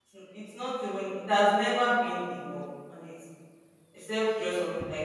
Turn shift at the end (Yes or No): No